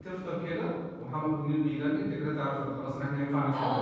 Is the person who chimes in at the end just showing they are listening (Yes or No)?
No